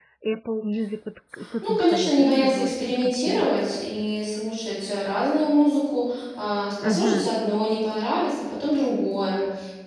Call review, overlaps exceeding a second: present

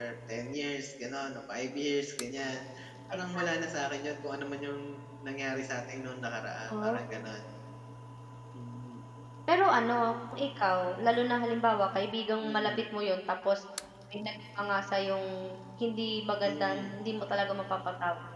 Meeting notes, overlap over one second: none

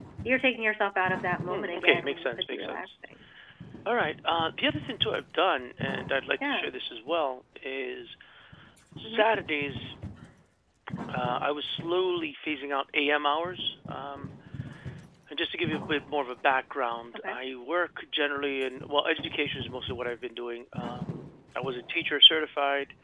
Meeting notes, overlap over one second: present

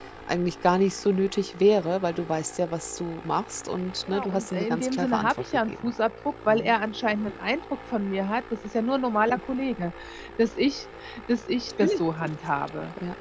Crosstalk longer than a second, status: present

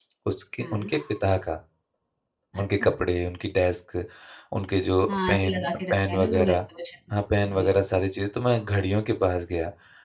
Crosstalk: present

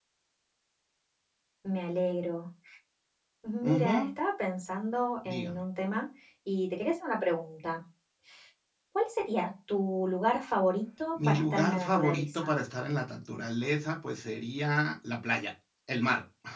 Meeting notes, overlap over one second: present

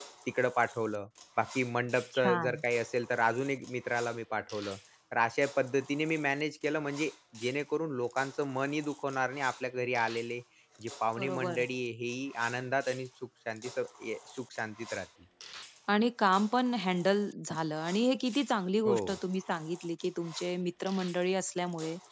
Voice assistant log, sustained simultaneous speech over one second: none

